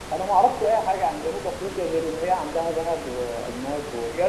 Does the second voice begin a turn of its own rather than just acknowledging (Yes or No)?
Yes